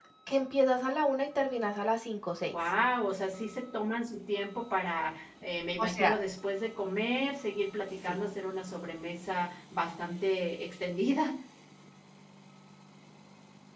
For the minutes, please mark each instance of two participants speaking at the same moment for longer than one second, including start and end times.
none

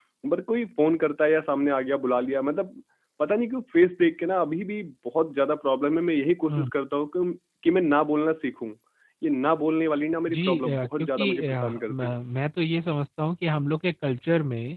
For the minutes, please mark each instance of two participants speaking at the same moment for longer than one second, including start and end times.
10.3-12.1

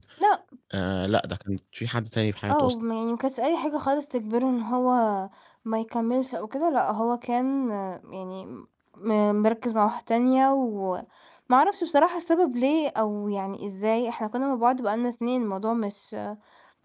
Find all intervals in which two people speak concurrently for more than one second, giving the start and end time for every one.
none

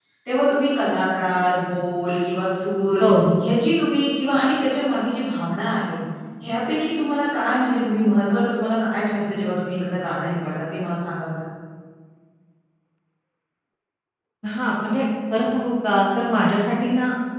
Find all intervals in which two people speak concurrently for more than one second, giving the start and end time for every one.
none

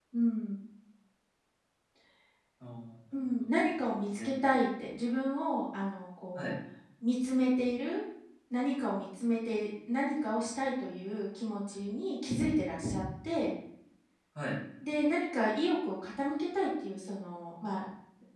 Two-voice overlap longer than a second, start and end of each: none

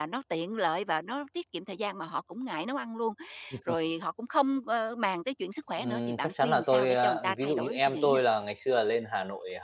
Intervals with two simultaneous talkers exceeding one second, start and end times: 5.8-8.2

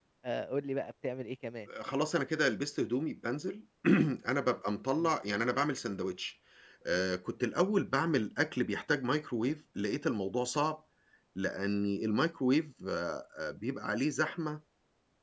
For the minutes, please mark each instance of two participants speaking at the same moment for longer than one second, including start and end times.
none

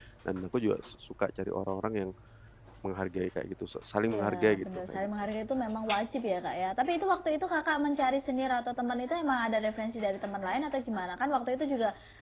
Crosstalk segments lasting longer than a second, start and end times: 4.0-5.2

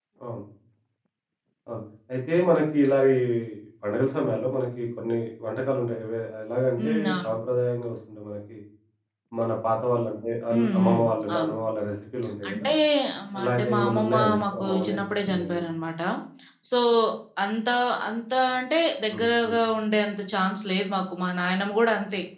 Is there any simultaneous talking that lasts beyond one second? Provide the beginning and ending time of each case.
13.4-15.6

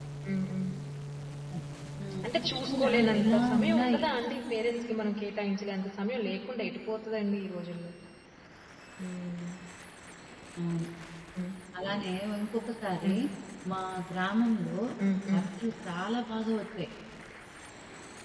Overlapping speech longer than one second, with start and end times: 2.7-4.0

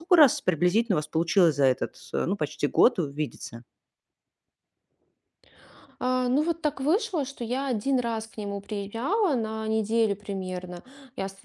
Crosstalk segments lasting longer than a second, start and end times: none

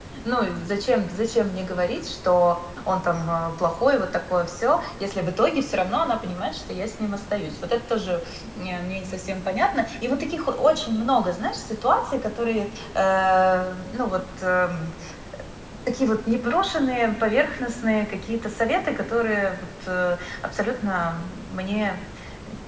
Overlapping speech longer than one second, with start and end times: none

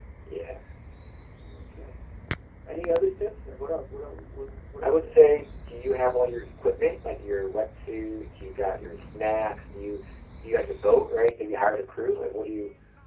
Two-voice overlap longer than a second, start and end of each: none

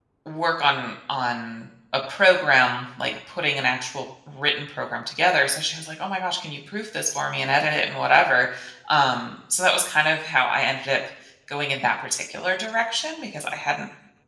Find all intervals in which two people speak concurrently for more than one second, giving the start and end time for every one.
none

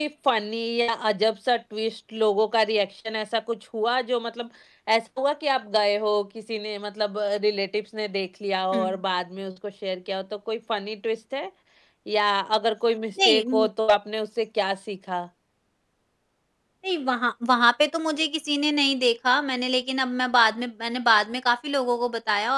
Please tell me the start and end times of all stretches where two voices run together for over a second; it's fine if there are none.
none

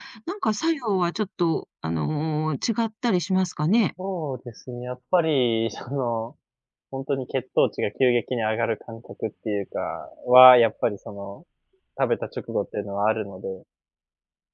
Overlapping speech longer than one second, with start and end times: none

